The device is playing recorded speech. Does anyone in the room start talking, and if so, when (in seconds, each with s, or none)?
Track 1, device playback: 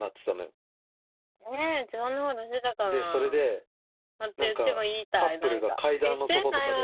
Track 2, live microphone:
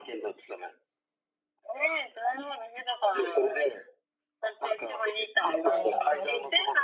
5.6 s